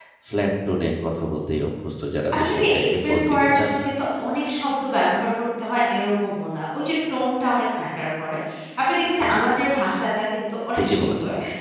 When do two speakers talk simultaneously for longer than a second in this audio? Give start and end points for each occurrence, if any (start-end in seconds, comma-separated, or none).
2.4-3.9